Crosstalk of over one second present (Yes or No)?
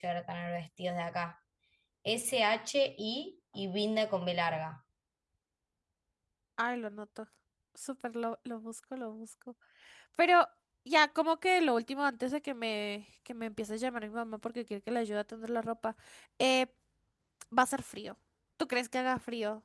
No